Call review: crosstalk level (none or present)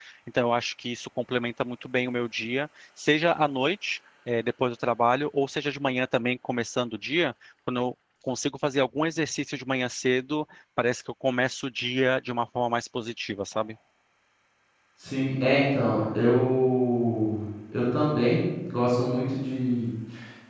none